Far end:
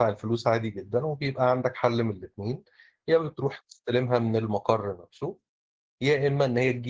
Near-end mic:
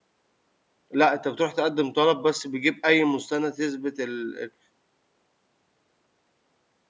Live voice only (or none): لأ، أنت بتروح تقدّم طلب بس بيجيب أي مستند يثبت ال ال